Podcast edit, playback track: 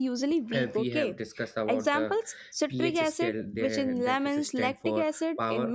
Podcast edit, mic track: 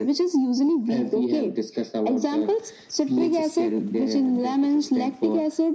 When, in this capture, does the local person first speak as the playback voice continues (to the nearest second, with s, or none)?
none